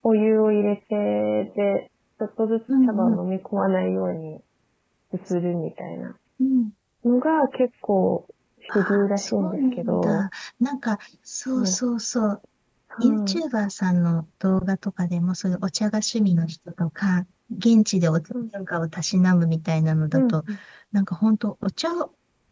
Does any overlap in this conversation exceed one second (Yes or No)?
Yes